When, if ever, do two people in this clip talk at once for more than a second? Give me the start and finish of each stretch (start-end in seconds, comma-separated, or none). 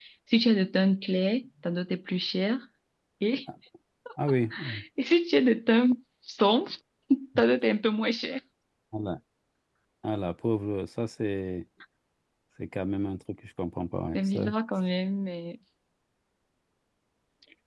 none